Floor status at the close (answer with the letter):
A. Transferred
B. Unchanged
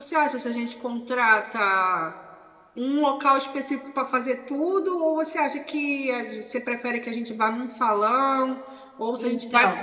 B